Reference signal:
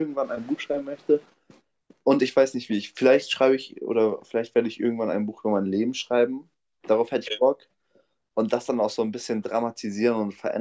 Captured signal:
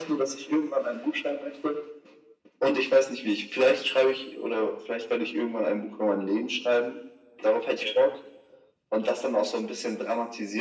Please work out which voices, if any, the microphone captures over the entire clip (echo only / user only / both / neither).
echo only